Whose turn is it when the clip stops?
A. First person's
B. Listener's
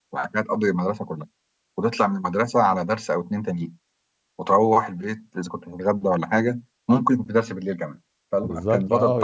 B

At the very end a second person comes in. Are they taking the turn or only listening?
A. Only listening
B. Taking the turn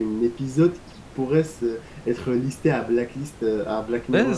B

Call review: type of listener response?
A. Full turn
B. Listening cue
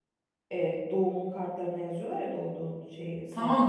A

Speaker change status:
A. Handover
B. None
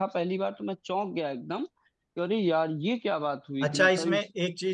A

